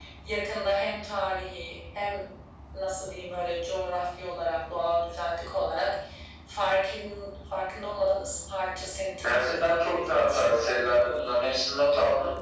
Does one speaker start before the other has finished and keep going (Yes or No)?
Yes